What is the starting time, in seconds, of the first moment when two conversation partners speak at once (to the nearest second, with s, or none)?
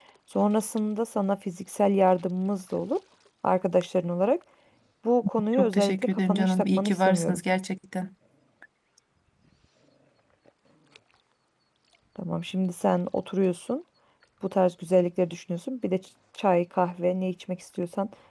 6 s